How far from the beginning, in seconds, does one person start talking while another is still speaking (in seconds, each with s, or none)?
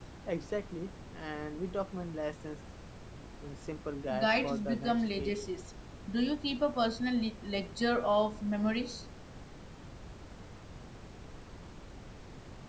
4.2 s